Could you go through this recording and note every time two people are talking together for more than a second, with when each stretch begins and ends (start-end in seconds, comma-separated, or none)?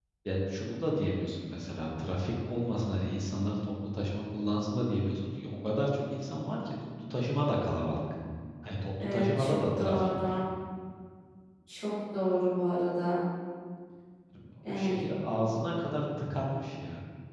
9.0-10.4